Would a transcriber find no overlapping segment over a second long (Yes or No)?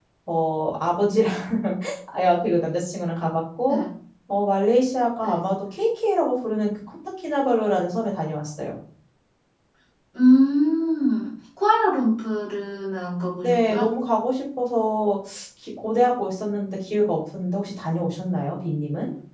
Yes